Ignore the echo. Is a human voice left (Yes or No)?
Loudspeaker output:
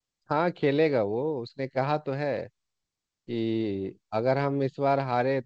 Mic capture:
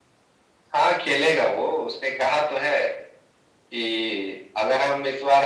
No